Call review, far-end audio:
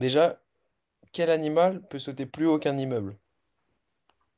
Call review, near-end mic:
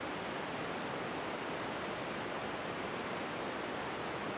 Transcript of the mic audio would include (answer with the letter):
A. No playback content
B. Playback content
A